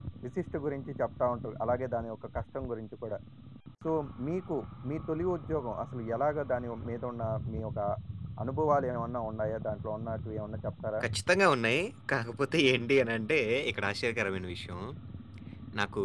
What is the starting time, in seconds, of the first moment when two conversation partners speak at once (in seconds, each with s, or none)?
none